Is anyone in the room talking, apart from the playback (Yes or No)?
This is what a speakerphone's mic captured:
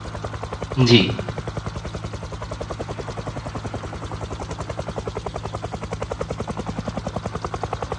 Yes